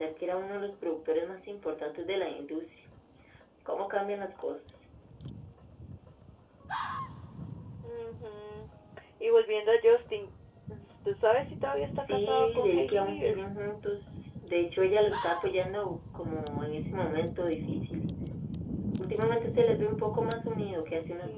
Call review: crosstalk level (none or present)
present